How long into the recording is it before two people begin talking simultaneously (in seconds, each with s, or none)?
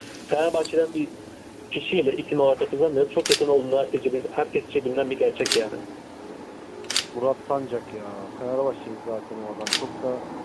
none